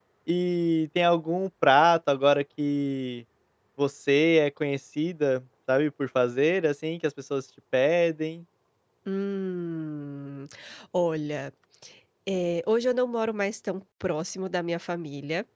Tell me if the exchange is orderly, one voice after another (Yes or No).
Yes